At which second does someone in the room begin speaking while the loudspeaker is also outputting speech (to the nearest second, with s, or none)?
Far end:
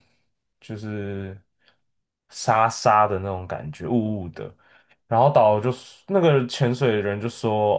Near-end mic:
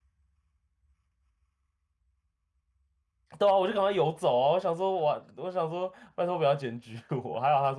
3 s